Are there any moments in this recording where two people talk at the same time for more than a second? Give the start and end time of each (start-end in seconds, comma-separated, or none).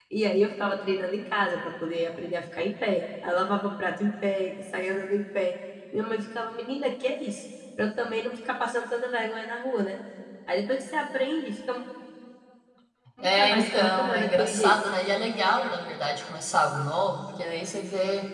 13.2-14.7